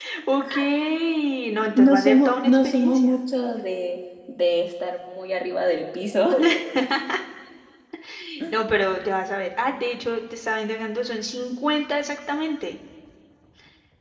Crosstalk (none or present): present